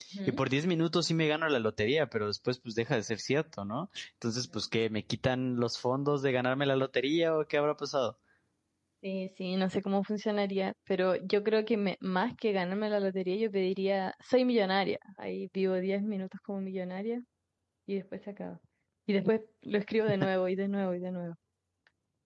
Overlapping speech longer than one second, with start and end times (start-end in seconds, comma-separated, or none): none